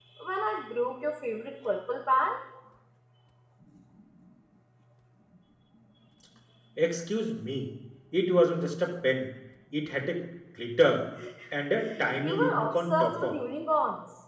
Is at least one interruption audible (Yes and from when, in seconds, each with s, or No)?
Yes, from 11.8 s